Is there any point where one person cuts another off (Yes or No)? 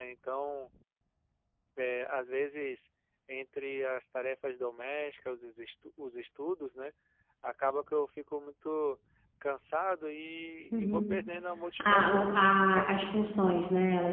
Yes